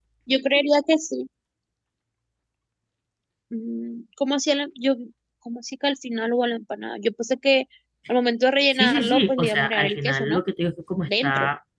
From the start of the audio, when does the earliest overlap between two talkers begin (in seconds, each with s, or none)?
8.7 s